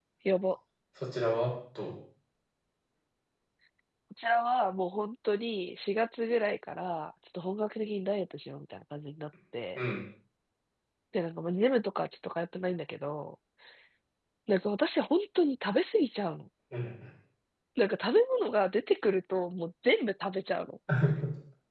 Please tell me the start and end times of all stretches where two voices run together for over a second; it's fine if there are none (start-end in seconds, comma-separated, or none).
none